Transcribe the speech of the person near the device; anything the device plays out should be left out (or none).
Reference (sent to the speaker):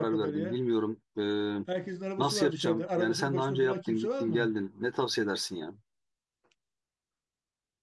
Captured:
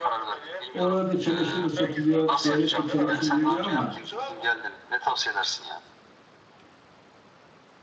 Oralarda çamaşır da satılıyor. Devlet de çamaşır veriyor ama